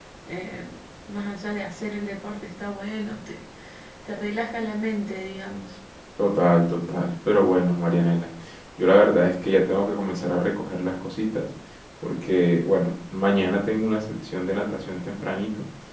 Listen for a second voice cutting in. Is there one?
No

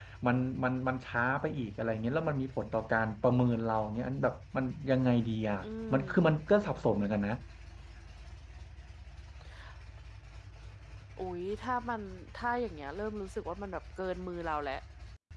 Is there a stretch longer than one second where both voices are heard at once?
No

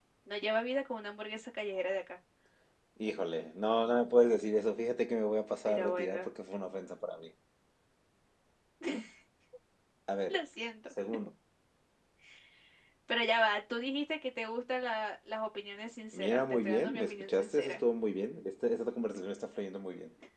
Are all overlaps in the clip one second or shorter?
No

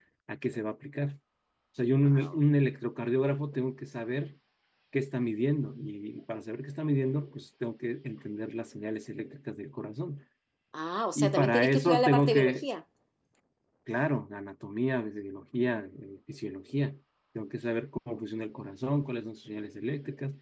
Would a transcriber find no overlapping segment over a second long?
No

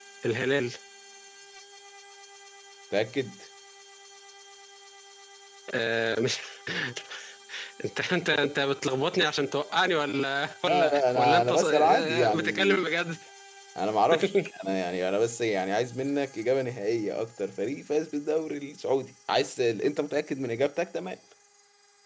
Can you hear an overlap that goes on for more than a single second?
Yes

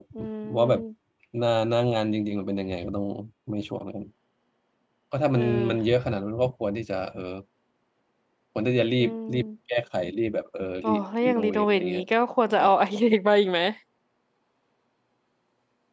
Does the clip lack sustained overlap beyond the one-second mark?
No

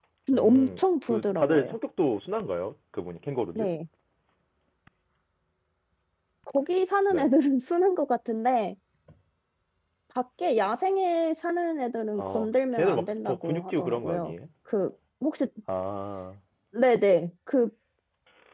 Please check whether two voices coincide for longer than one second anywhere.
Yes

